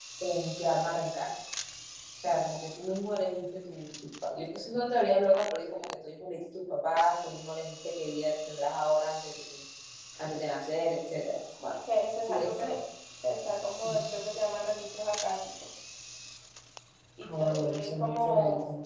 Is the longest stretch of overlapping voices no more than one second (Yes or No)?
No